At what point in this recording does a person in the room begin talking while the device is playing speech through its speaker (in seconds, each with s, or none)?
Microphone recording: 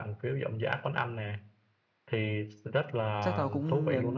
3.2 s